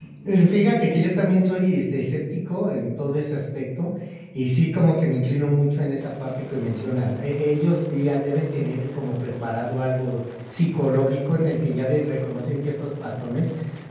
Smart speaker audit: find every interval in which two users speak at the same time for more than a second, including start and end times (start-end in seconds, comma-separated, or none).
none